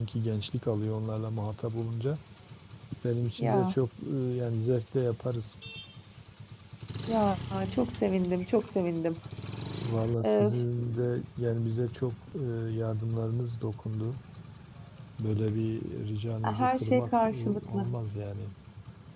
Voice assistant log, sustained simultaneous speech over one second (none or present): present